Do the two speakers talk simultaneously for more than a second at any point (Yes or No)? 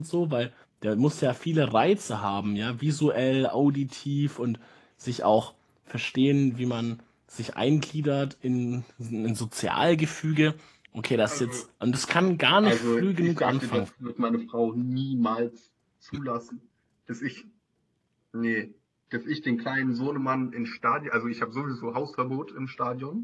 Yes